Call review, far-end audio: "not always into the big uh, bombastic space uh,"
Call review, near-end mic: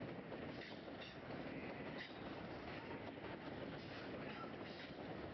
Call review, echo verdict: none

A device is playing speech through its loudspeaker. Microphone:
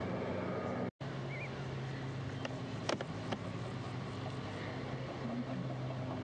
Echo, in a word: none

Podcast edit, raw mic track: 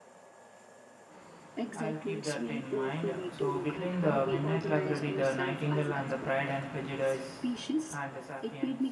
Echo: present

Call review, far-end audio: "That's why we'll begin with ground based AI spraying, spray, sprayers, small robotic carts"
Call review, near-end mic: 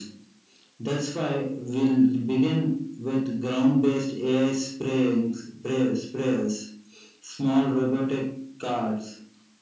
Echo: present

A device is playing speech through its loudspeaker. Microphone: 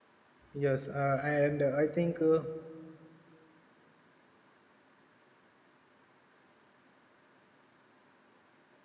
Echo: none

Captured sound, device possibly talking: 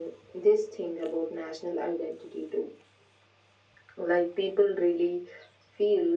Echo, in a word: present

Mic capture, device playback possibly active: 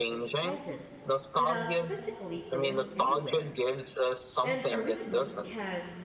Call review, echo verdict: present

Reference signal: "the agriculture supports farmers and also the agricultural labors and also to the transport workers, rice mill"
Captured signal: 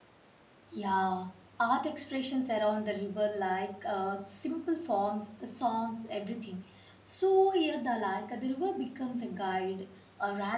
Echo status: none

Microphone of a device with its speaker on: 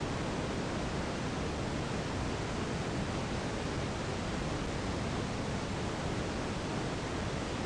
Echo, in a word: none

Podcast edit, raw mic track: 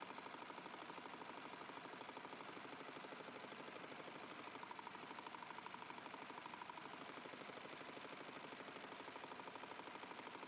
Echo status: none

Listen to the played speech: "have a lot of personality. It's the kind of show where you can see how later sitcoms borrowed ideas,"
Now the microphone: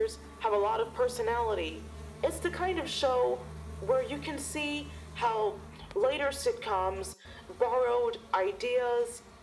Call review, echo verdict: present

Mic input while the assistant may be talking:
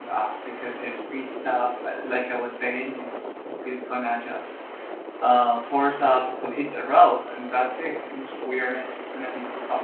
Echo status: none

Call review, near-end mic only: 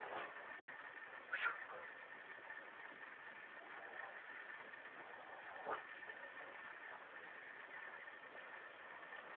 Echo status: none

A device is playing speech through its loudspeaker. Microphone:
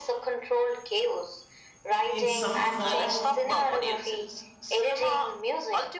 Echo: present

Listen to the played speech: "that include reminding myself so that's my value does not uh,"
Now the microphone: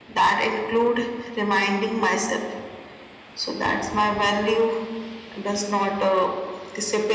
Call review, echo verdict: present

